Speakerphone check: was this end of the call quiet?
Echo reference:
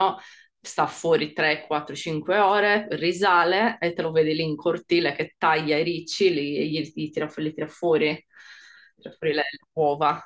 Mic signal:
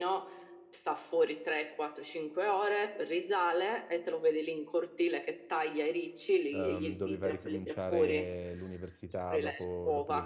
No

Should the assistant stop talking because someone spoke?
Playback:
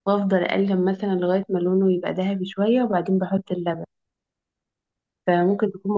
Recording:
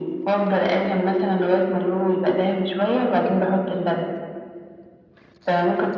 No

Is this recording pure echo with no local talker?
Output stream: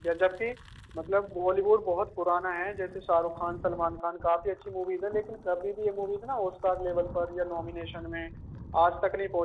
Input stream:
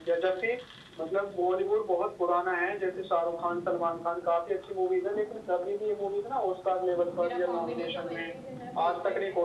No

